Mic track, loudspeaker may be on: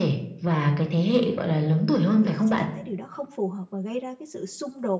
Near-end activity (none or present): present